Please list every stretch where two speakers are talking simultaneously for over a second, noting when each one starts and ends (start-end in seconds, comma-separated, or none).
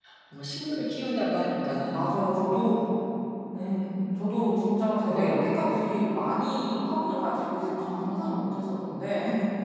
none